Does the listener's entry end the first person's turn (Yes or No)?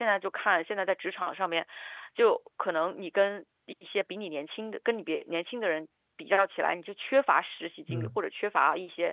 No